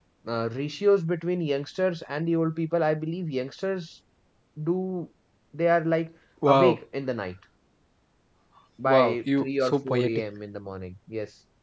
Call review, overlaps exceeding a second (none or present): present